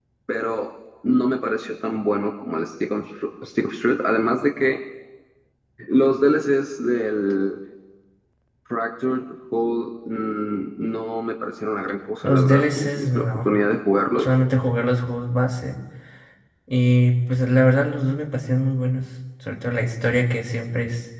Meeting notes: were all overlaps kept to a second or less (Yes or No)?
No